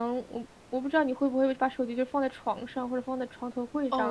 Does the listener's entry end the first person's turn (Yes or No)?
Yes